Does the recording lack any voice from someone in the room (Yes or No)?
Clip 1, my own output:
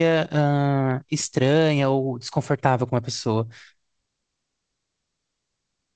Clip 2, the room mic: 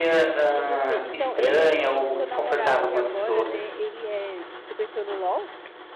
No